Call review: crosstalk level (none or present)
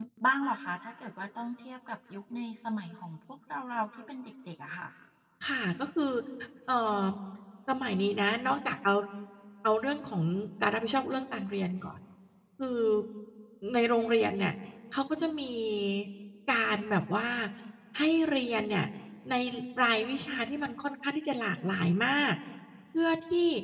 none